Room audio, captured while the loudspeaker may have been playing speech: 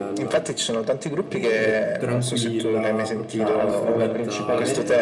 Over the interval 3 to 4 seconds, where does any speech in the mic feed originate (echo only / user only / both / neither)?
both